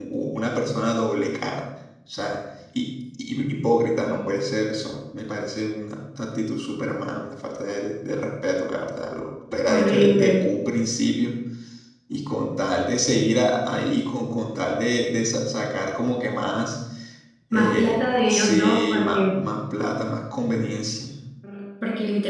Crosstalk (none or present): present